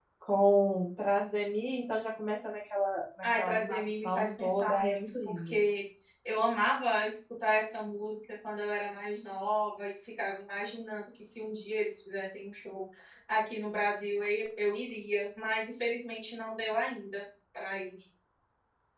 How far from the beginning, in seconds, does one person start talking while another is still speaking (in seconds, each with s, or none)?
3.2 s